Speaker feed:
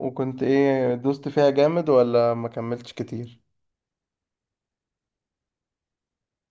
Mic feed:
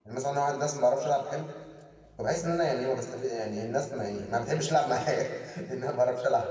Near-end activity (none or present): present